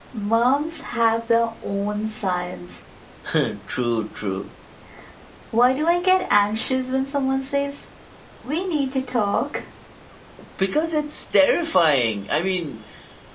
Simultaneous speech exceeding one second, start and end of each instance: none

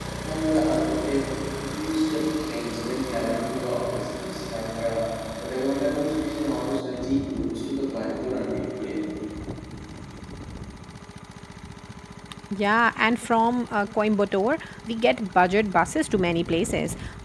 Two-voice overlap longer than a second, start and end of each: none

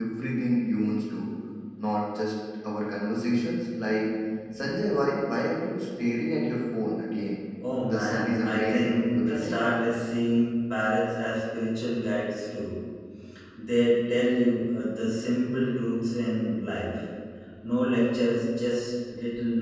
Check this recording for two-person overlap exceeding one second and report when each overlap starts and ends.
7.9-9.6

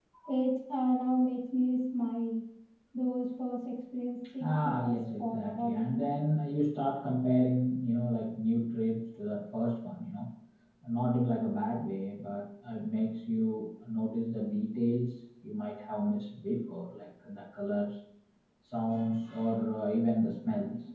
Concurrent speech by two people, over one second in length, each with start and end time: 4.4-6.1

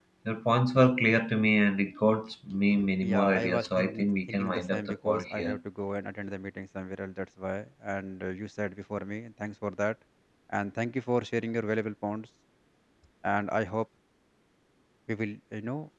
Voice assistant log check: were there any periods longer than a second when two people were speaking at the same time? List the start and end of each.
3.0-5.6

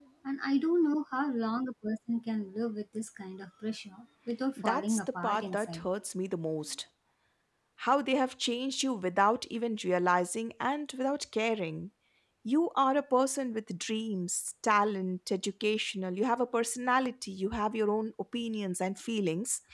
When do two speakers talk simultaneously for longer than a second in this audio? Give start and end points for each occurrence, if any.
4.6-5.9

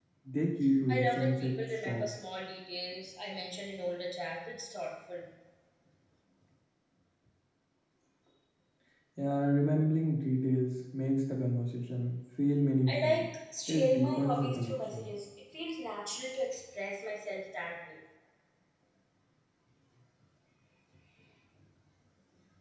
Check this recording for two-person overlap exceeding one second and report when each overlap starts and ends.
0.9-2.2, 13.7-15.1

